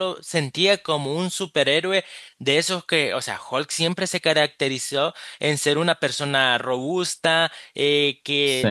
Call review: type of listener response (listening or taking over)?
listening